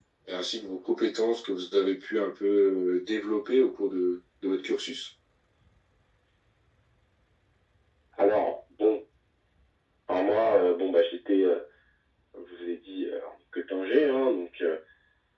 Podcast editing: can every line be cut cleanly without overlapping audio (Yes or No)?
Yes